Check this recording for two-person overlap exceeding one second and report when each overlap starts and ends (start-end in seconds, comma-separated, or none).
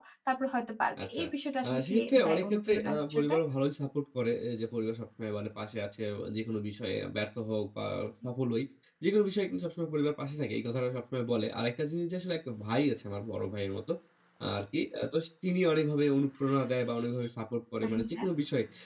1.6-3.4